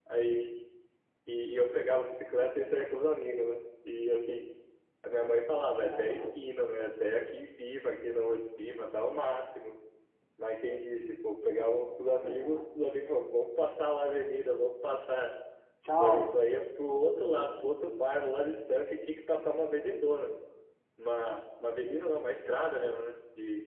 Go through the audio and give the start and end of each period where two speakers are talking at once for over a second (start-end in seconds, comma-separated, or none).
none